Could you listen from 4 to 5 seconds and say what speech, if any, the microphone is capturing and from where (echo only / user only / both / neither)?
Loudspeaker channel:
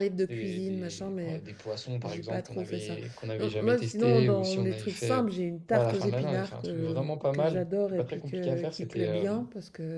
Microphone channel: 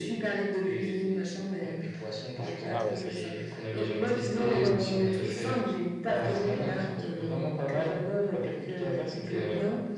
both